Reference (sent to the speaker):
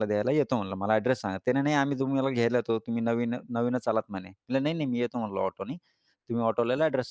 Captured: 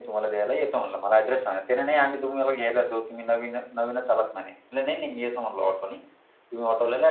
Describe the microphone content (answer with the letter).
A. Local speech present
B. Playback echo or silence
B